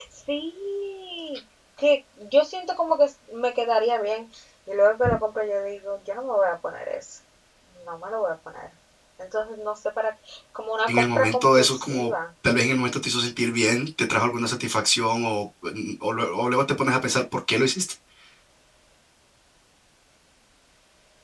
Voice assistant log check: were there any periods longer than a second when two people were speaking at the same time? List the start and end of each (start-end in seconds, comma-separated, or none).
10.9-12.1